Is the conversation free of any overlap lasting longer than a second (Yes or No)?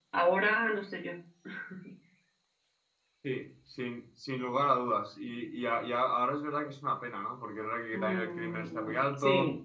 No